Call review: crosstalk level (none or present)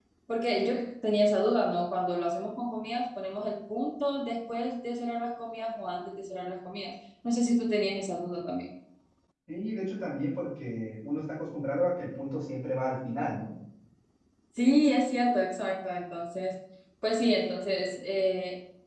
none